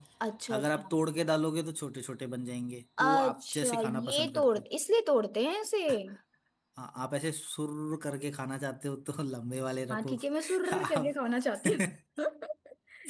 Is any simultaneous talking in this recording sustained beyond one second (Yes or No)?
Yes